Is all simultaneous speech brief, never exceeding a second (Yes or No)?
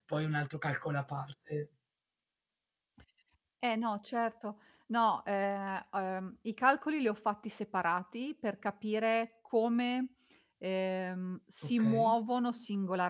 Yes